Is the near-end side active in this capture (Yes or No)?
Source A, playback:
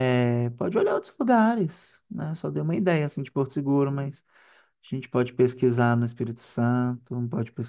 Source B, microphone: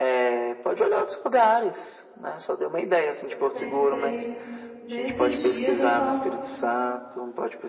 Yes